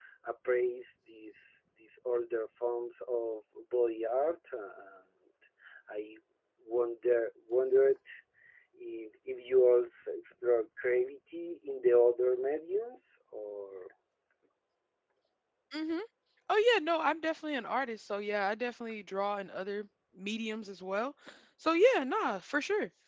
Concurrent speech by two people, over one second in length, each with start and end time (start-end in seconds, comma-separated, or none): none